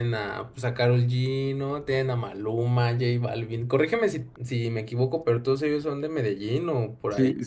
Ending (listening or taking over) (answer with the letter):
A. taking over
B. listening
A